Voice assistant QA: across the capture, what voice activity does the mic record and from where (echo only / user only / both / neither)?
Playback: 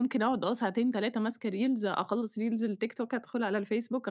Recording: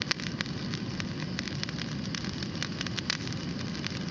neither